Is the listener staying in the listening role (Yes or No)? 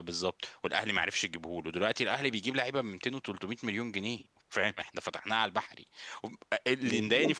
No